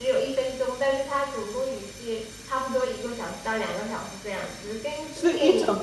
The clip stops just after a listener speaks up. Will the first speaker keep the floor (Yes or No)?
No